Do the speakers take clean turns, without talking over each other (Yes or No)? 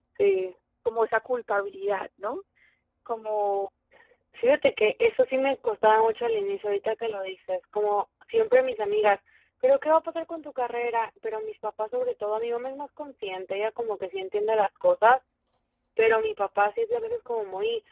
Yes